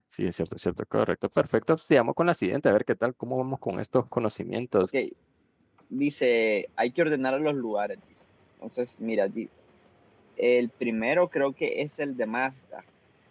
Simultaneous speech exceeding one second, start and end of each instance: none

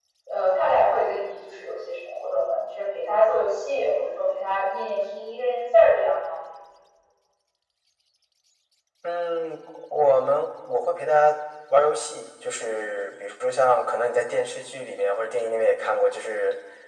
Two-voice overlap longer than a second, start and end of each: none

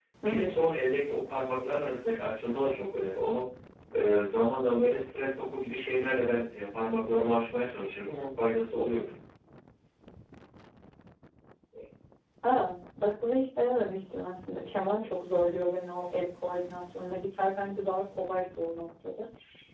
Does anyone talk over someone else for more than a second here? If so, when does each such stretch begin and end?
none

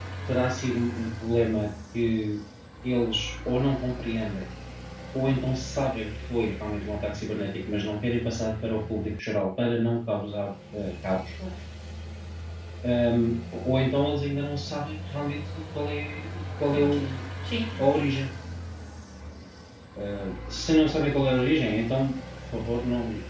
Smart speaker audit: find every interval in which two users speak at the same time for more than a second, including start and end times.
none

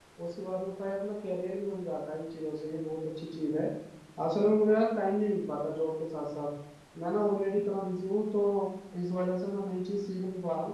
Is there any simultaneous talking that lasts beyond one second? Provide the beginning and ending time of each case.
none

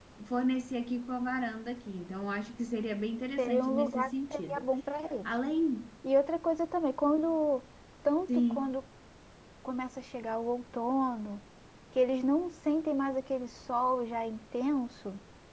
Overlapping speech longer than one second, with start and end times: 3.4-4.7

